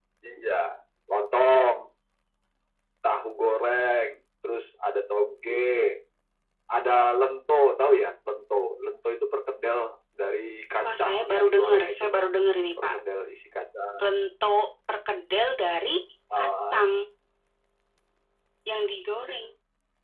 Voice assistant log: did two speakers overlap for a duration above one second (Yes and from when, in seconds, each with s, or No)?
Yes, from 10.8 s